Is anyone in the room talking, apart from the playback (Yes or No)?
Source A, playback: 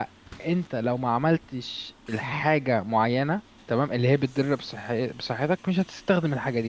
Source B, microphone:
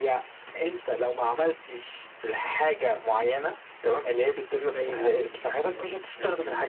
Yes